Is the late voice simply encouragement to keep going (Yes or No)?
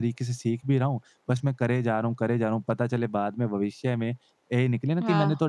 Yes